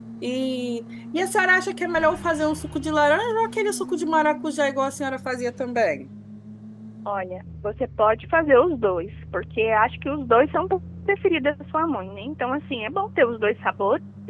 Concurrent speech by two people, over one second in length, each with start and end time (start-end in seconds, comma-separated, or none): none